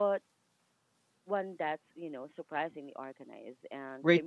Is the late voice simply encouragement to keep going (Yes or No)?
No